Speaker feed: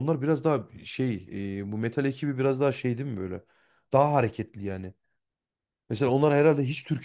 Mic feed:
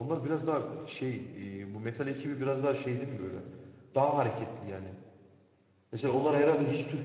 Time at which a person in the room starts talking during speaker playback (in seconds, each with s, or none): none